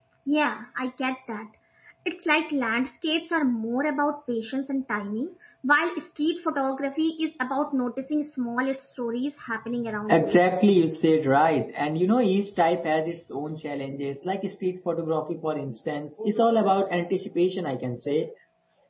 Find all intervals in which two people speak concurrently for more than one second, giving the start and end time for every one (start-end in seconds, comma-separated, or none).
none